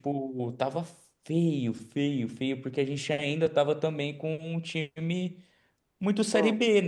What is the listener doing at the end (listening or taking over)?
listening